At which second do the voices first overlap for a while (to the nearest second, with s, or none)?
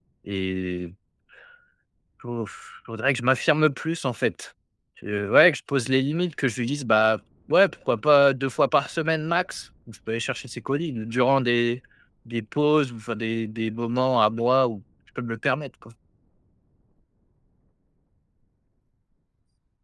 none